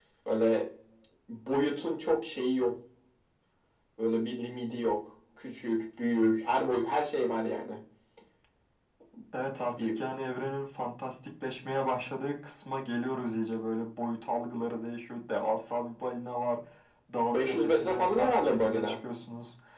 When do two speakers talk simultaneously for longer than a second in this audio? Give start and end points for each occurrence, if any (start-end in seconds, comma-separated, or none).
17.3-18.9